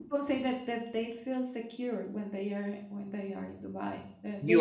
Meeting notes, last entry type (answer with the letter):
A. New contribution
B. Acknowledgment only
A